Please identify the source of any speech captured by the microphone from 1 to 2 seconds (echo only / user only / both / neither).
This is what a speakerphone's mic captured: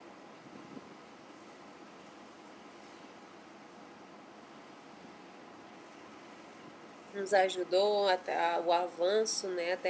neither